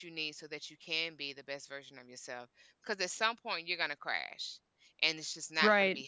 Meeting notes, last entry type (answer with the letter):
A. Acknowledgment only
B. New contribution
A